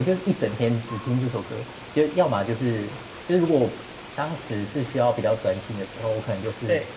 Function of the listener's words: listening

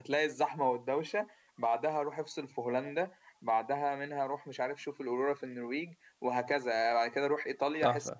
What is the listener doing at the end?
taking over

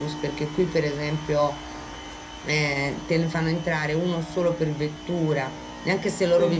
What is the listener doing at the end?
listening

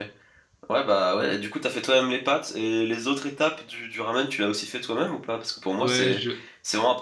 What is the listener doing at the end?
listening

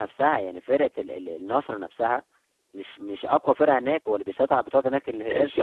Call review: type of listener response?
taking over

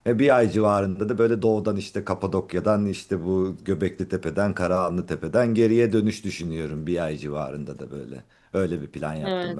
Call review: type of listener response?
taking over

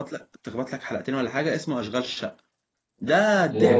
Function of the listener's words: taking over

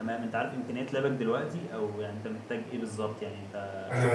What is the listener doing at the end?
taking over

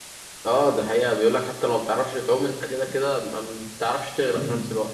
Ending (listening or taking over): taking over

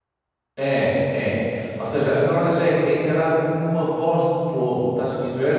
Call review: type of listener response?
listening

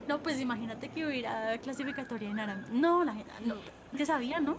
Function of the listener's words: listening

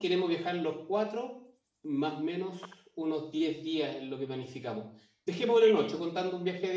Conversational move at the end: listening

